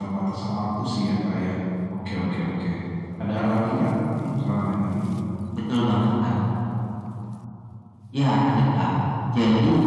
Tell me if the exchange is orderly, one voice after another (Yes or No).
Yes